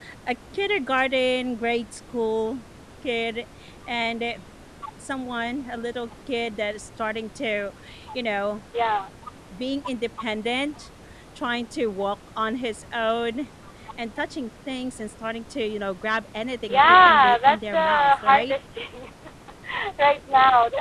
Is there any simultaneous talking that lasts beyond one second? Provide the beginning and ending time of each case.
16.7-18.5

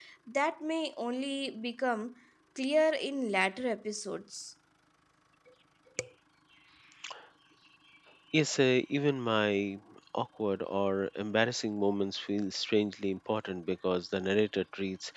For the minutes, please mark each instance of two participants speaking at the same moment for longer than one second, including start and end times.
none

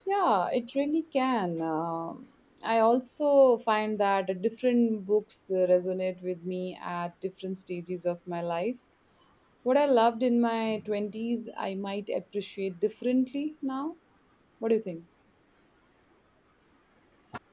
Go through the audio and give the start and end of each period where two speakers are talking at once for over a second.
none

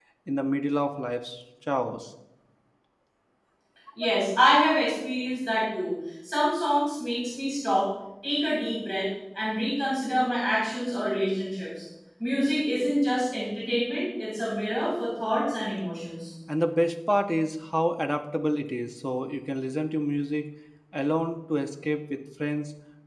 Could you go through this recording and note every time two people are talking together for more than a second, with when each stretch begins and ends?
none

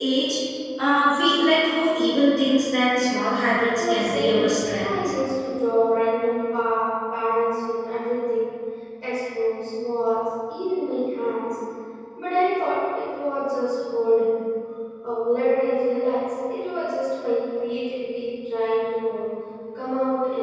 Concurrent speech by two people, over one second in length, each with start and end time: 3.7-4.9

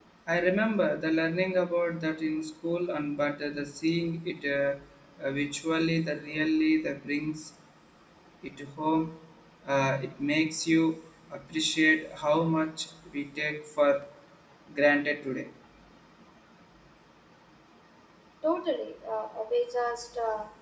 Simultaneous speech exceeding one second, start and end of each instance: none

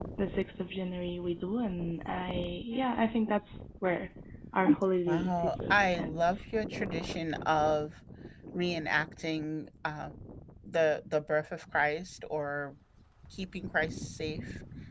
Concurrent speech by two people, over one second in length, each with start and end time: 5.1-6.4

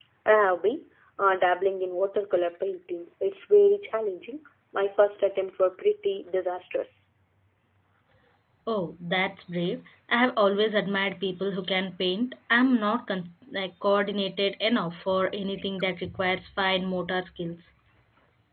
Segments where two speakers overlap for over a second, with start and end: none

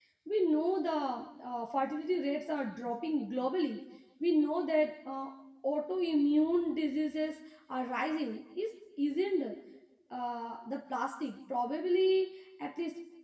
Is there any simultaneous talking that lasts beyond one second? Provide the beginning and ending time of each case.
none

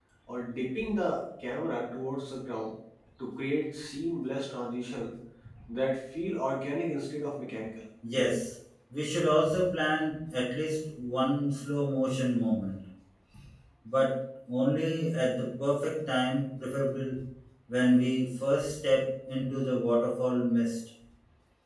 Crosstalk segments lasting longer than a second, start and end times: none

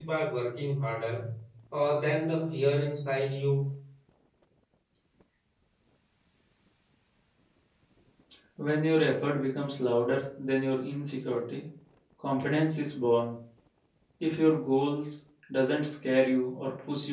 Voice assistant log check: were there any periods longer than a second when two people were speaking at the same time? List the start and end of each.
none

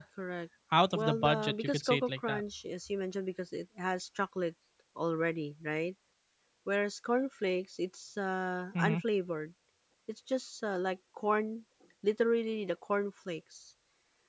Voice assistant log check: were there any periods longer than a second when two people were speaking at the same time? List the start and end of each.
0.9-2.4

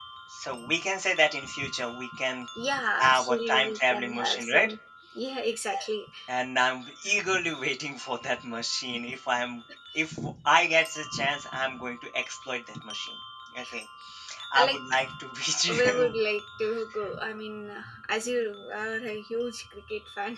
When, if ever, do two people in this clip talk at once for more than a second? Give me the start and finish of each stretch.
3.0-4.7

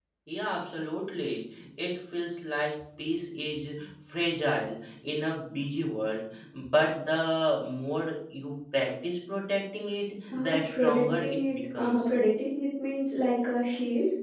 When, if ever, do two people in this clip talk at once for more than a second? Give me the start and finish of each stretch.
10.3-12.0

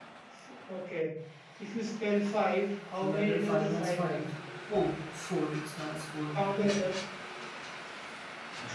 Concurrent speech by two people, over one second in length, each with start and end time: 3.0-4.2

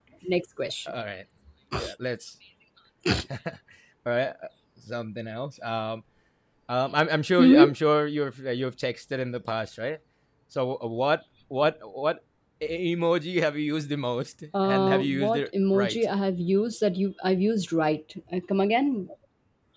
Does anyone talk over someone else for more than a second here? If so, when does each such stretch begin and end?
14.6-16.0

